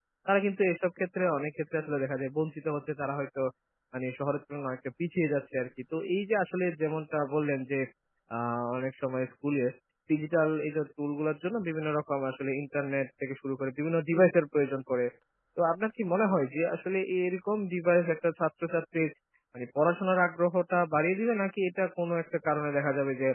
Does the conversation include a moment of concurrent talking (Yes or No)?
No